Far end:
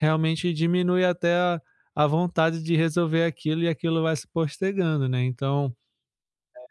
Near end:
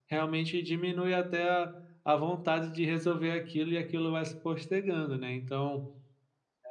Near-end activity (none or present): none